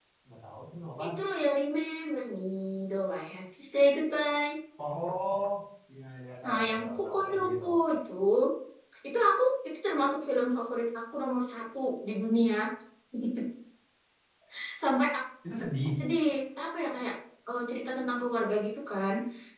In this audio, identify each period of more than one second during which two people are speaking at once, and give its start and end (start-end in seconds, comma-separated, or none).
6.4-7.8